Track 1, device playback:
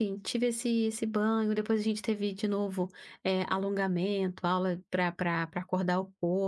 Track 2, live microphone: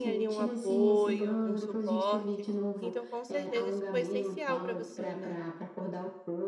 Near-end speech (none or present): present